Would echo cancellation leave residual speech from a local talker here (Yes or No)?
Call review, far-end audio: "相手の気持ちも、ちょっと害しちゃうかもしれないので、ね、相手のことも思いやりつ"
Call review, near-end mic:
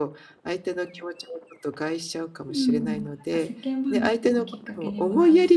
Yes